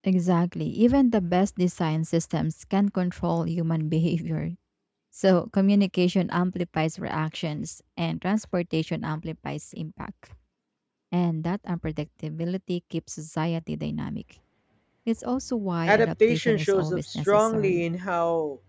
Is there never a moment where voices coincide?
No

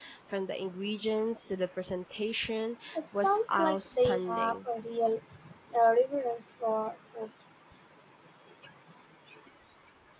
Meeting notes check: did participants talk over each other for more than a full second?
Yes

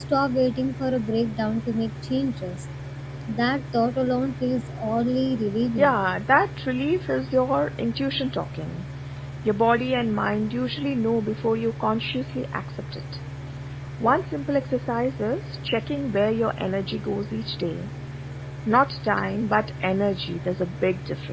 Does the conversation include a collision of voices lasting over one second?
No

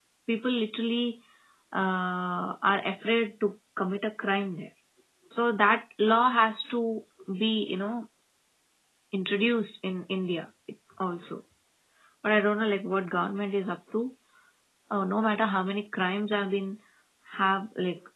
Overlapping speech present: No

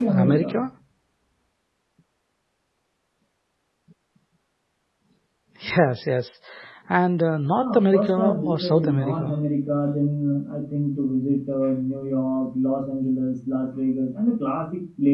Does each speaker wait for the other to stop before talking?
No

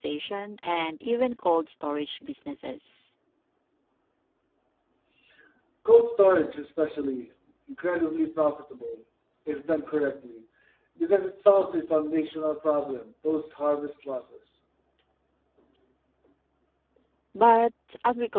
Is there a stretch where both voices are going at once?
No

